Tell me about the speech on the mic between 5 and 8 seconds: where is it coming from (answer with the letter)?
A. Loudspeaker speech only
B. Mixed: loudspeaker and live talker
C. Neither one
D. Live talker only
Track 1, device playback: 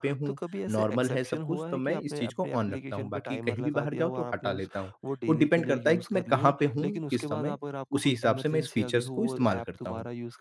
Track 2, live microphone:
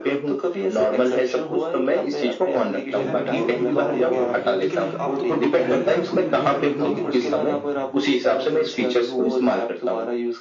B